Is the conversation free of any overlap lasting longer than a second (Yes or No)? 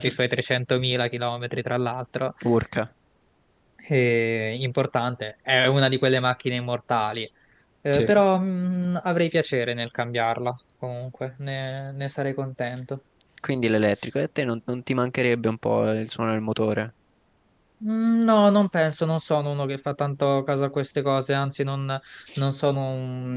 Yes